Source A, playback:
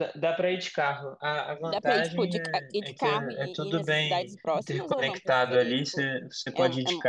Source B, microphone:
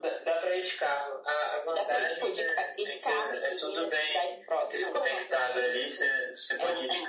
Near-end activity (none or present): none